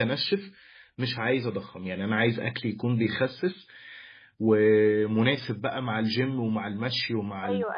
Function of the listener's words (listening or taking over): taking over